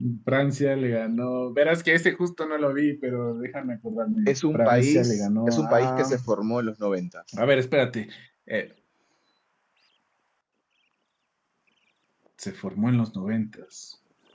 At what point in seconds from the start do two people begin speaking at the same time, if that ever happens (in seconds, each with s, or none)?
4.3 s